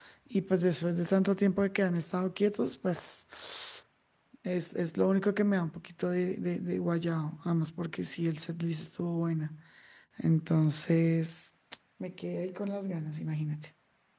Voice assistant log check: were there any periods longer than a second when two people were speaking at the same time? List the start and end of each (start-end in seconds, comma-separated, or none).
none